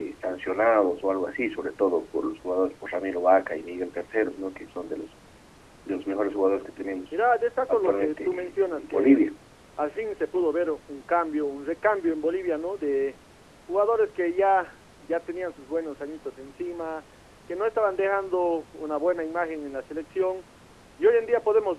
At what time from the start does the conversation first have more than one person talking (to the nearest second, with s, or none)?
8 s